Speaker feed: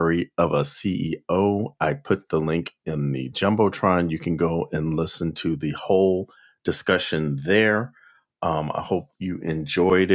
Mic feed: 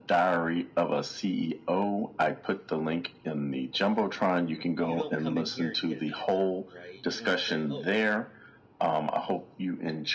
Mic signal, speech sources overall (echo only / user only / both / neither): both